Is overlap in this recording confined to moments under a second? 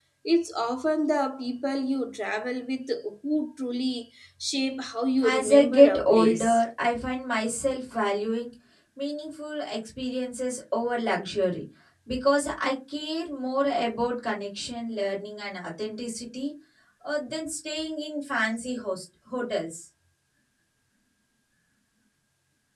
No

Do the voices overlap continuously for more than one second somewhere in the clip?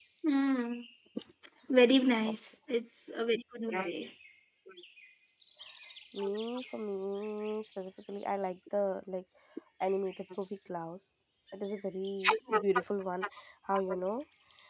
No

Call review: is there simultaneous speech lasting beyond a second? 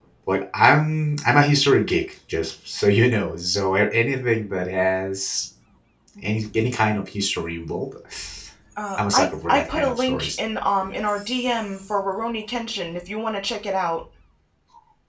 Yes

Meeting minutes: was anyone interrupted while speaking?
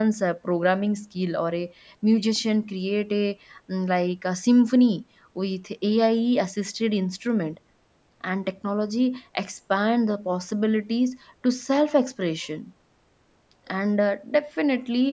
No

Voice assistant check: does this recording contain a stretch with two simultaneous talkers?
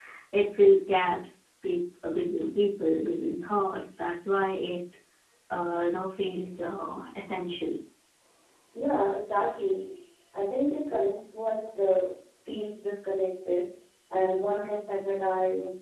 No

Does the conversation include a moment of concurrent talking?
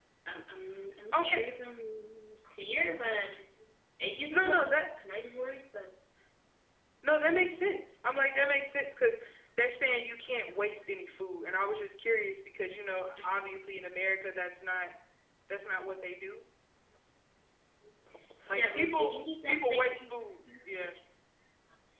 Yes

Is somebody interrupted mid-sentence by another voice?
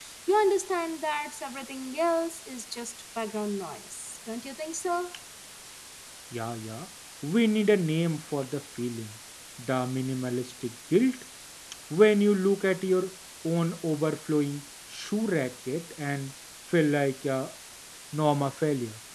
No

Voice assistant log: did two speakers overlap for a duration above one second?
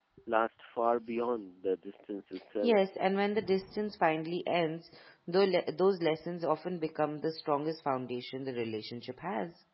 No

